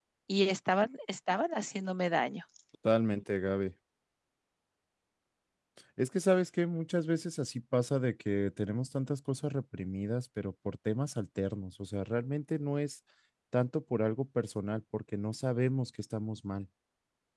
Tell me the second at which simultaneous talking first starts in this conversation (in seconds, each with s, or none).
none